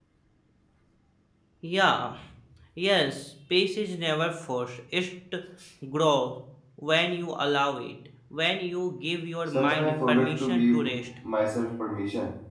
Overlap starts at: 9.5 s

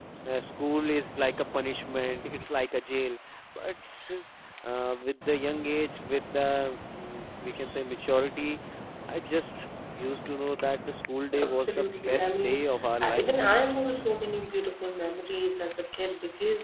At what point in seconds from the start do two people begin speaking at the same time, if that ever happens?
11.3 s

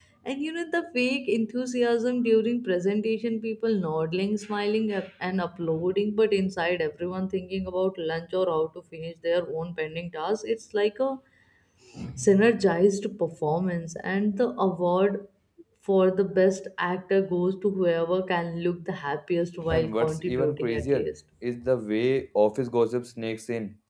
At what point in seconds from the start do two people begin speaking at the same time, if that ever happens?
19.7 s

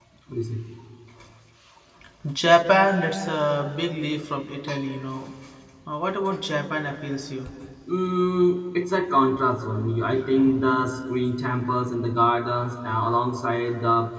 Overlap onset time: none

